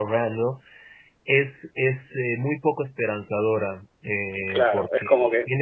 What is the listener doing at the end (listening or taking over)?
taking over